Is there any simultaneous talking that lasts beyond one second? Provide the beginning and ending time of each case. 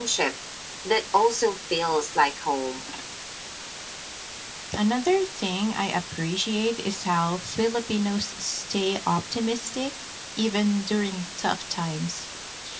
none

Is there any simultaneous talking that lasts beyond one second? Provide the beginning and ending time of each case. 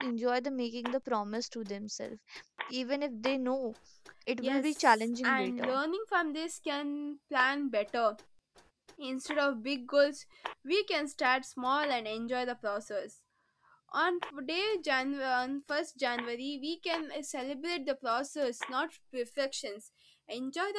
4.4-5.7

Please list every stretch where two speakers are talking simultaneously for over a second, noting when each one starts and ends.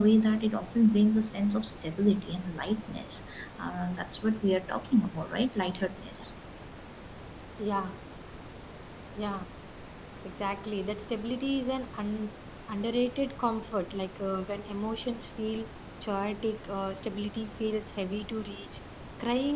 none

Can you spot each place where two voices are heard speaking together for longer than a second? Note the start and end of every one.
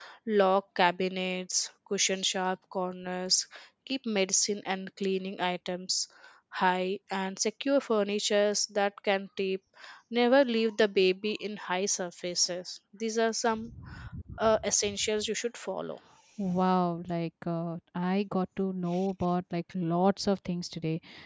none

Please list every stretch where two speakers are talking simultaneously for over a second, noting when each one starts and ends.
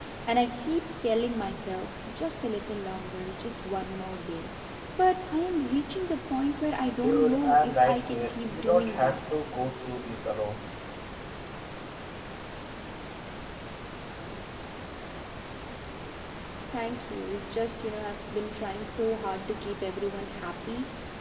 7.0-9.2

